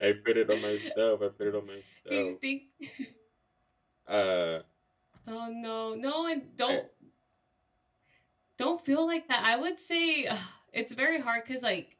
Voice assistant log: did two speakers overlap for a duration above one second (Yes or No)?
No